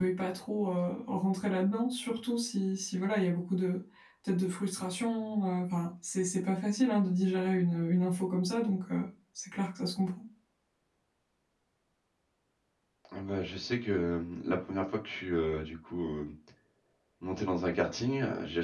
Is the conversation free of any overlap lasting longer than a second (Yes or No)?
Yes